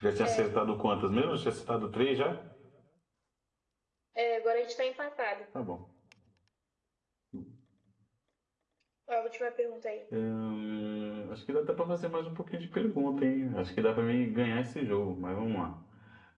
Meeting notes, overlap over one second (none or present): none